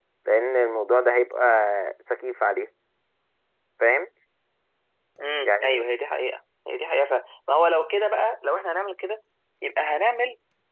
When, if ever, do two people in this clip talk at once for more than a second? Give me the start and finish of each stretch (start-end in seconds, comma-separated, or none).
none